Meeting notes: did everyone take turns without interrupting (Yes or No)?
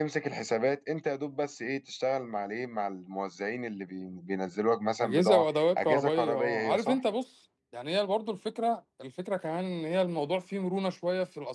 No